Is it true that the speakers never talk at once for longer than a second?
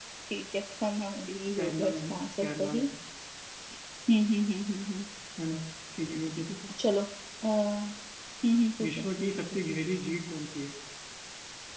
No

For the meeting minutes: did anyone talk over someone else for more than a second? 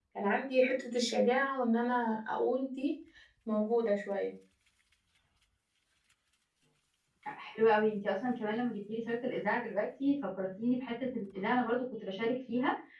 No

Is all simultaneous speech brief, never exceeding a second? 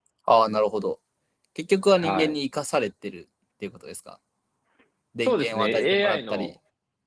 No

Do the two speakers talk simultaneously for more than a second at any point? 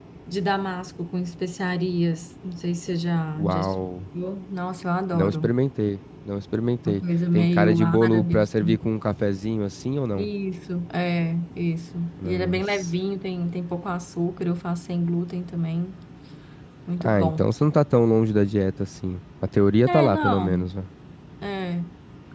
Yes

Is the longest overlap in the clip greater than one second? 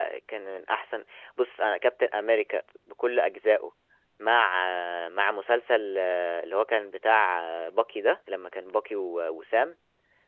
No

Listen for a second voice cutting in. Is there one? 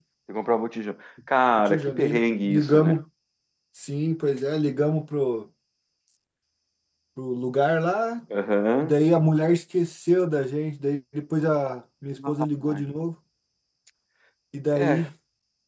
Yes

